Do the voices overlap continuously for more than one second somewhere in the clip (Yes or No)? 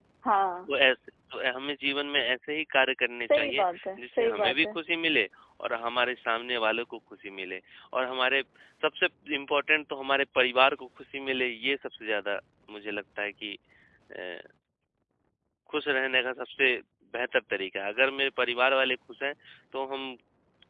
Yes